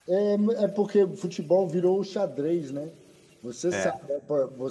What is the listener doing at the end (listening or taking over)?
listening